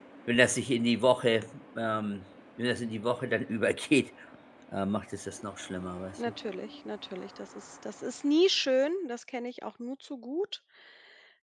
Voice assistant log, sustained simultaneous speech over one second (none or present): none